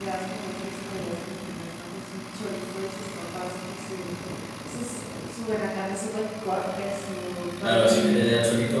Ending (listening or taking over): taking over